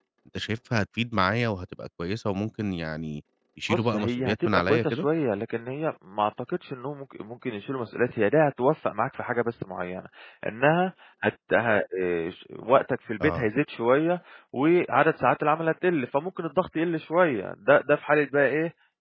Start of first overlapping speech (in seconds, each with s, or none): 3.7 s